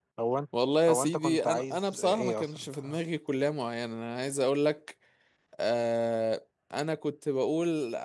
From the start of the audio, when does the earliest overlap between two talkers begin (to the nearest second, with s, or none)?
1 s